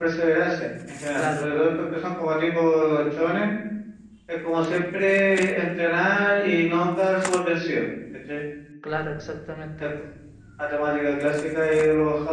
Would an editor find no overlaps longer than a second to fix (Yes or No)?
Yes